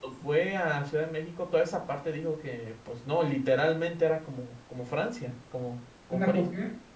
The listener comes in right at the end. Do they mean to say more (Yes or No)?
Yes